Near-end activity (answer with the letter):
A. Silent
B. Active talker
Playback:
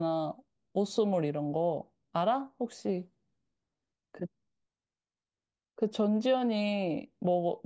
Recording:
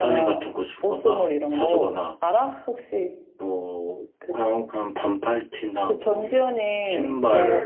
B